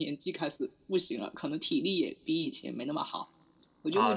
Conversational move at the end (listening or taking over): taking over